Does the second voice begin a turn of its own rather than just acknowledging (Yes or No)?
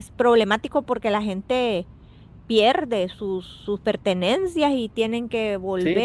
Yes